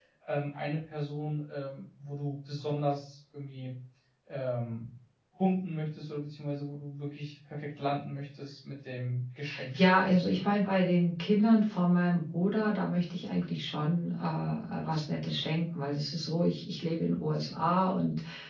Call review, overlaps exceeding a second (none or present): none